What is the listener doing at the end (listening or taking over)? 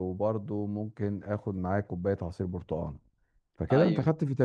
listening